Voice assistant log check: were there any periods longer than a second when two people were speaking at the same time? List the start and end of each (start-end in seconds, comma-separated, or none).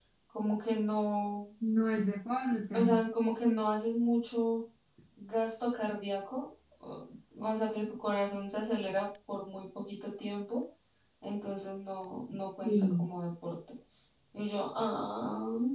none